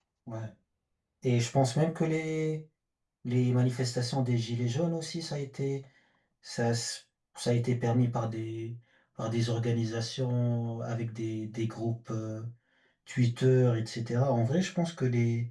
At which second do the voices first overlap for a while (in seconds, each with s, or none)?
none